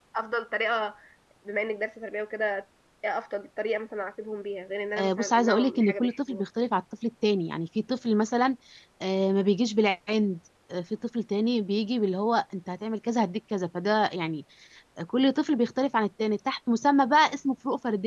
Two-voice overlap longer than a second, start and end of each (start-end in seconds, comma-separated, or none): 5.0-6.4